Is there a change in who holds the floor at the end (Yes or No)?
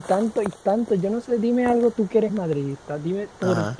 No